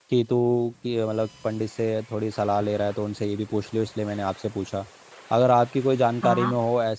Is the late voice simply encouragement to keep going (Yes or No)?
Yes